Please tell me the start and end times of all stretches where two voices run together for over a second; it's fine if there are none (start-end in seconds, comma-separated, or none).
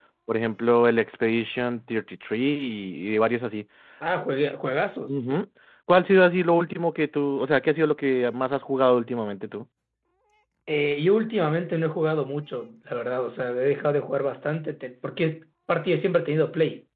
none